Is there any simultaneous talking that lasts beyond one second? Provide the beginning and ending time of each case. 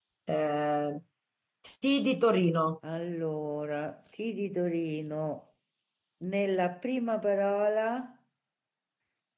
none

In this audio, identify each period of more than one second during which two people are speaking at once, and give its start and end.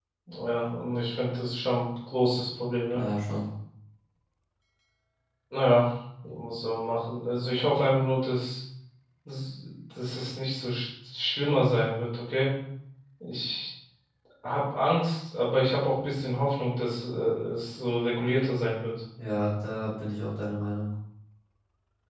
none

